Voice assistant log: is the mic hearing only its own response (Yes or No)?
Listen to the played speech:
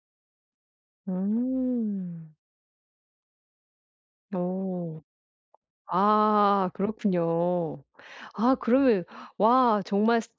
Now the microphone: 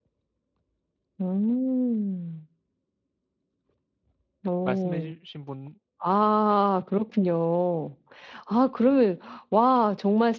No